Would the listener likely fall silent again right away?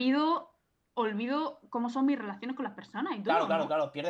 No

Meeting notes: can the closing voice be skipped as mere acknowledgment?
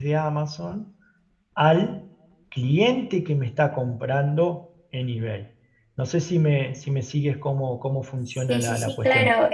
No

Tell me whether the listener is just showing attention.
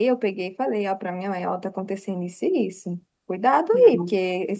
Yes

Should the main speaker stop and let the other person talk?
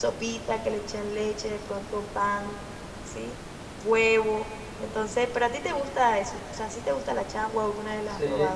Yes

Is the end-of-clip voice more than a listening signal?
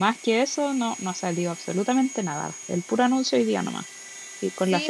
Yes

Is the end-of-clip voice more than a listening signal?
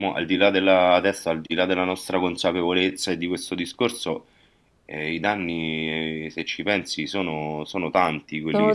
Yes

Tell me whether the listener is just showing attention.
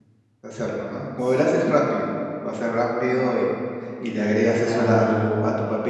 Yes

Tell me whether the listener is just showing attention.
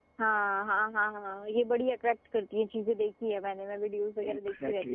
Yes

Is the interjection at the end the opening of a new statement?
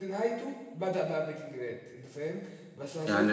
Yes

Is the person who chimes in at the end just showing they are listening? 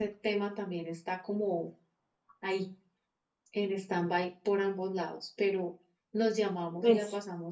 Yes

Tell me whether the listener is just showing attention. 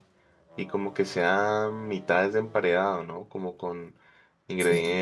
Yes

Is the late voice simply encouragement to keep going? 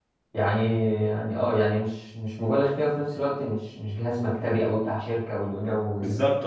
No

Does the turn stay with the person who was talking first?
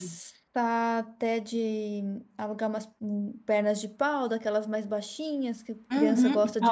No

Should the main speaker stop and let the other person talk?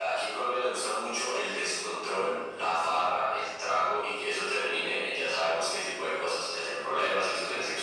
No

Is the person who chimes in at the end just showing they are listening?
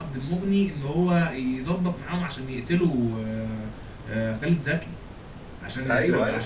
Yes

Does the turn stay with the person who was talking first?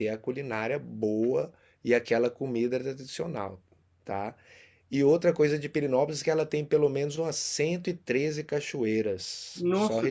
Yes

